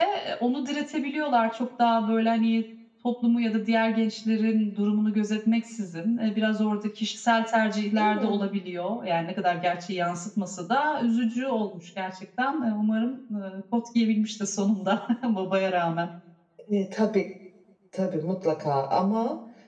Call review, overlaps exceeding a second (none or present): none